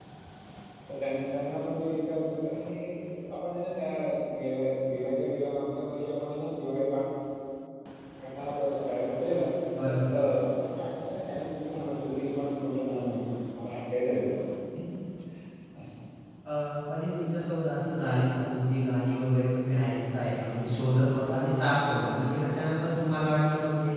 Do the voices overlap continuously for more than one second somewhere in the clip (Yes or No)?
No